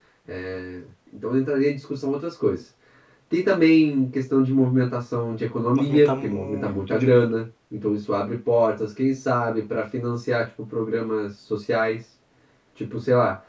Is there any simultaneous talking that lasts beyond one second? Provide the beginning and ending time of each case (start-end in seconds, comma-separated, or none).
5.8-7.3